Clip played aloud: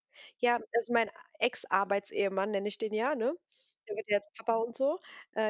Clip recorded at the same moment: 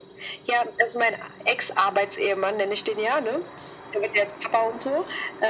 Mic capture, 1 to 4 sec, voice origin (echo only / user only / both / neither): echo only